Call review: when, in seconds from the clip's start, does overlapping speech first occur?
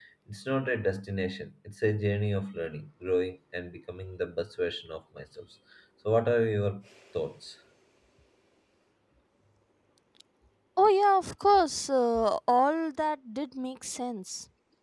none

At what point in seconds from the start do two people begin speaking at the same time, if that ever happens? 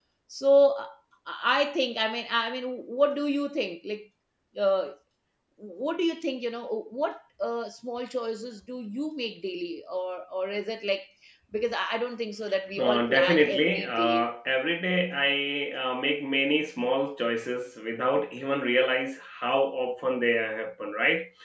12.8 s

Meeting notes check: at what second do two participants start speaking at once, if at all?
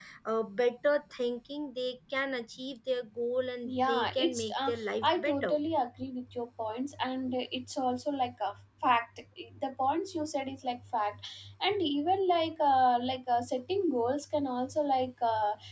3.6 s

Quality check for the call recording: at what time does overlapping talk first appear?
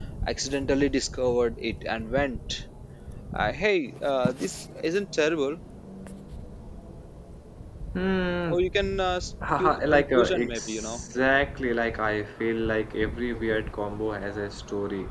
9.6 s

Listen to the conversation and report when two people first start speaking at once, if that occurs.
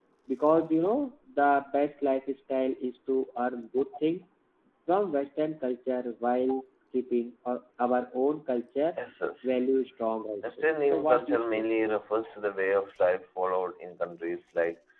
10.4 s

